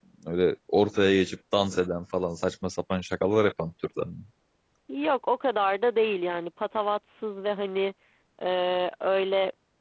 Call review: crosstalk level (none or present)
none